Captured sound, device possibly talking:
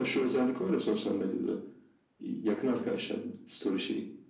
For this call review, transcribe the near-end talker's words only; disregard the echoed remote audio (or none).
none